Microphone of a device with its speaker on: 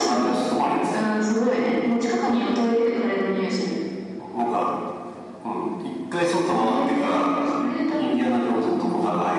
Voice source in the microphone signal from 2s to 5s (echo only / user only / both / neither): echo only